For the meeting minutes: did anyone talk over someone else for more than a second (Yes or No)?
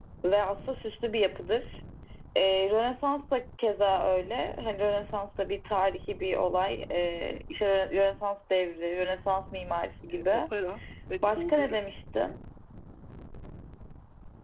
No